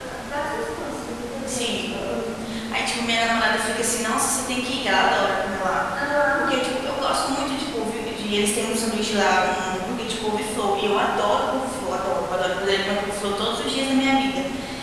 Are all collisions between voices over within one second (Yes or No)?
Yes